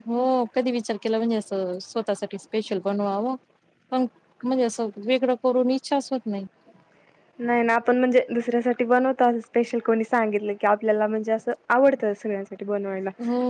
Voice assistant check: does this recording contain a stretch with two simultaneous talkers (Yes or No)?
No